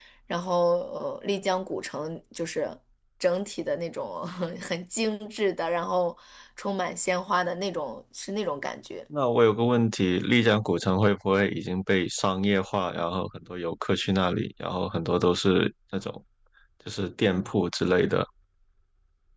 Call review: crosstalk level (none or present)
none